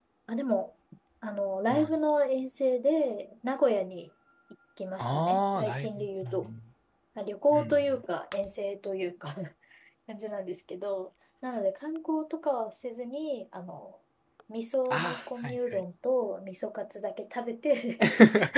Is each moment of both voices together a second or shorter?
No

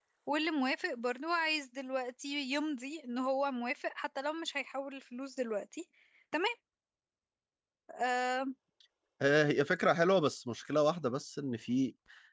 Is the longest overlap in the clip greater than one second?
No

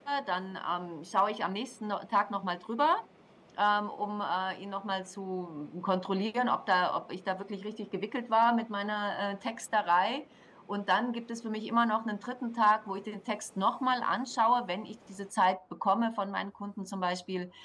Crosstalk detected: No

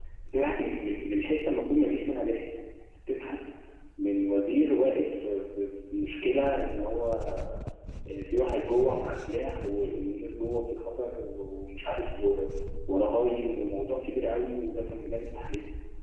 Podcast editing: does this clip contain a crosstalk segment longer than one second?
No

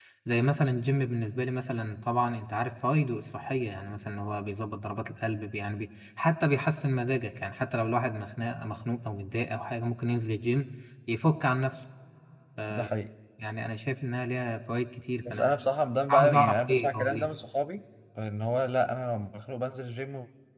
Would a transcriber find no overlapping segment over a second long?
No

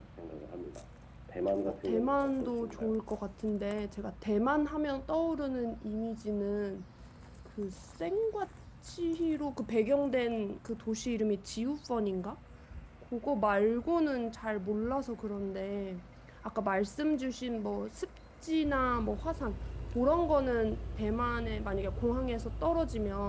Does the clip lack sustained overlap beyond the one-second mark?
No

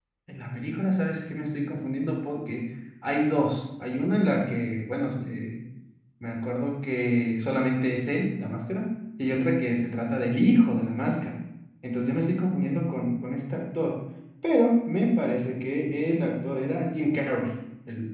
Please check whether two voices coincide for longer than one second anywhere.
No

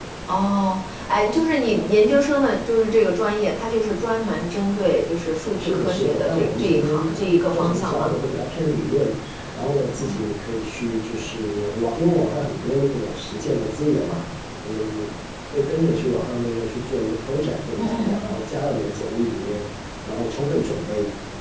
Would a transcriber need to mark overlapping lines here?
Yes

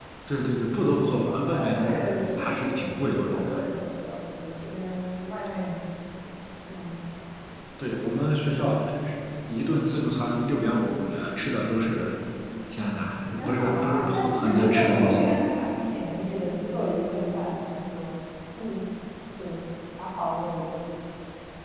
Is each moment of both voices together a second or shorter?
No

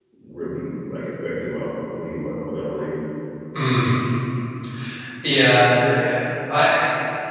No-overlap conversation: Yes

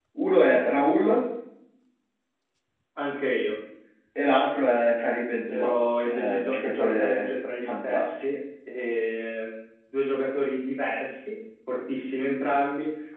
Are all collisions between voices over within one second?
No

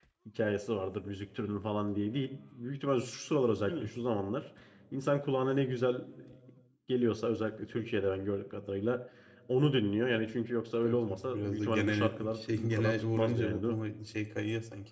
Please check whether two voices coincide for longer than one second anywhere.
Yes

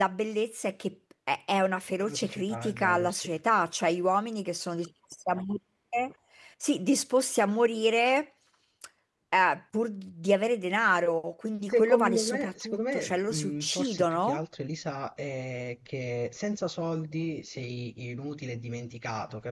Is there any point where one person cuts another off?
Yes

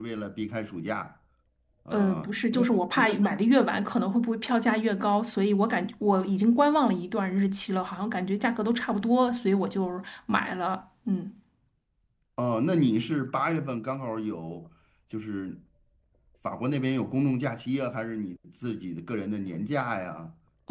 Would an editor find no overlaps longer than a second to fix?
No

